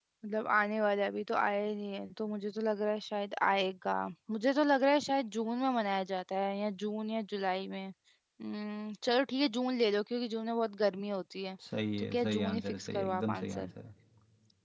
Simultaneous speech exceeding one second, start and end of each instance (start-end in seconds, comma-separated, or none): 12.0-13.7